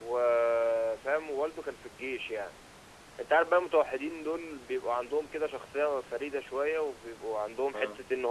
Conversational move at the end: listening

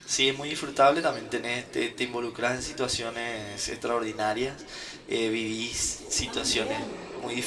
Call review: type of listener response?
listening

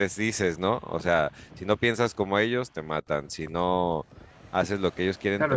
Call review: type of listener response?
taking over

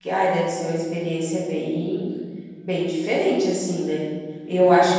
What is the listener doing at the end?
listening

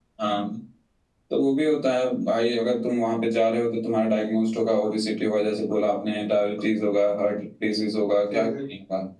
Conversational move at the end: listening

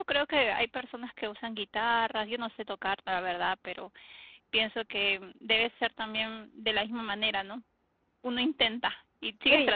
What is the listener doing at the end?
taking over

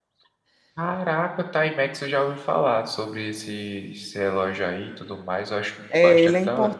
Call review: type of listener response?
taking over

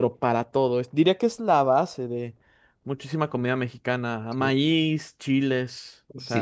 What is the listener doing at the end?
taking over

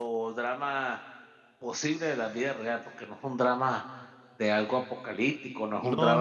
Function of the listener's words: taking over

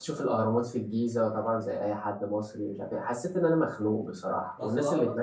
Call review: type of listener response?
taking over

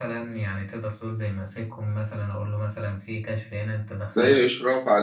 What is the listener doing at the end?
taking over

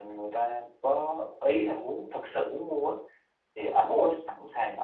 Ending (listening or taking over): listening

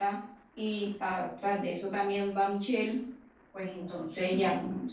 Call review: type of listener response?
listening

